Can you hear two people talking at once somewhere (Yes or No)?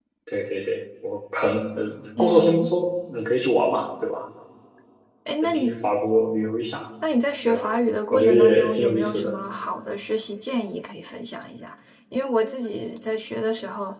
Yes